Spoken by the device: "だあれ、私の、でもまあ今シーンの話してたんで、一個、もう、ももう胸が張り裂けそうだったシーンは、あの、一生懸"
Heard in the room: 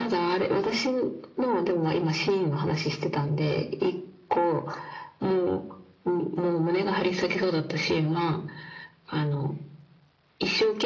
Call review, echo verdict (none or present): present